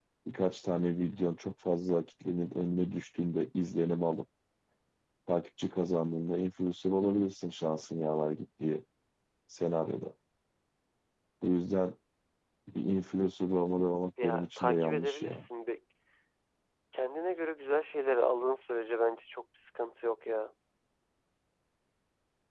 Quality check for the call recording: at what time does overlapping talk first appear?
14.2 s

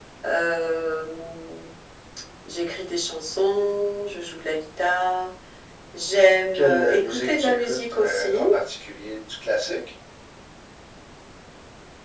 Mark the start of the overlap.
6.5 s

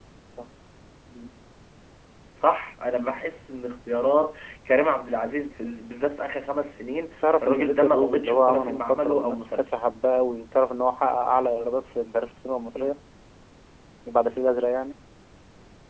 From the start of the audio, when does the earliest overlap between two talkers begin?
7.2 s

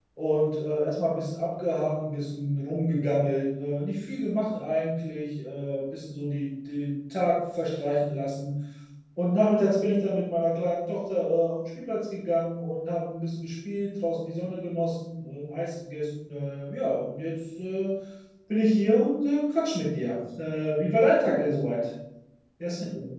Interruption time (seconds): none

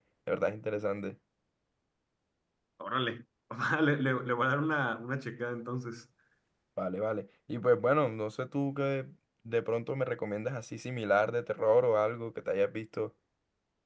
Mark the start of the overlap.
none

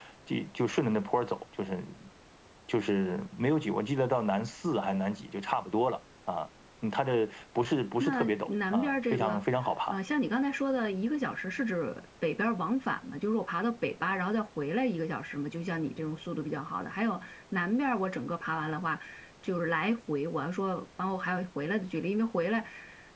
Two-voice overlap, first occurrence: 8.0 s

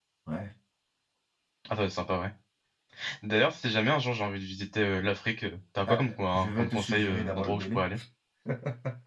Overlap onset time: 5.9 s

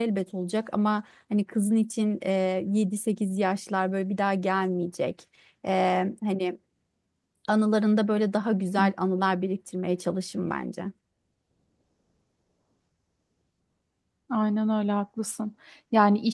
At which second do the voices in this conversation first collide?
none

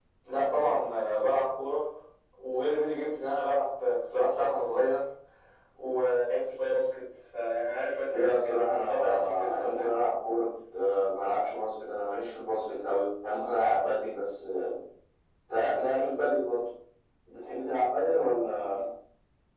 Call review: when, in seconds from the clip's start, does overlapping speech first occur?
8.1 s

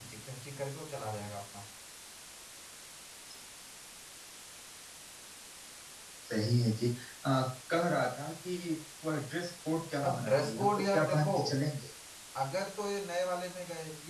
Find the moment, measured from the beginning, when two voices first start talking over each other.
10.0 s

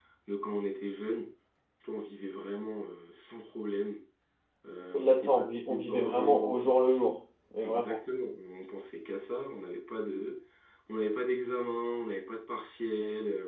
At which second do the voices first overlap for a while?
4.9 s

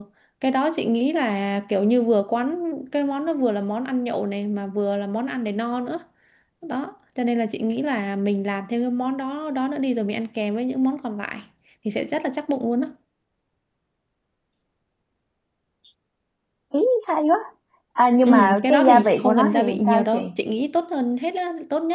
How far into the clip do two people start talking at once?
18.2 s

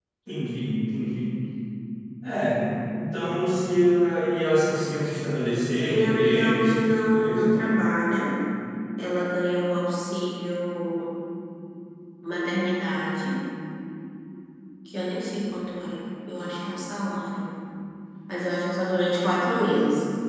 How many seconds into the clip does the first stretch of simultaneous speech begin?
5.9 s

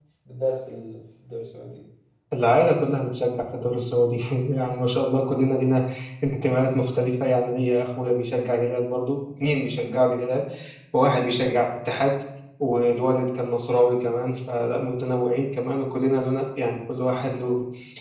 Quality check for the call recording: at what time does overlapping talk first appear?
none

